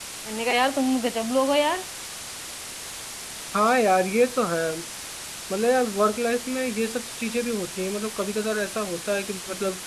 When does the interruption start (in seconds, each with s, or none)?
none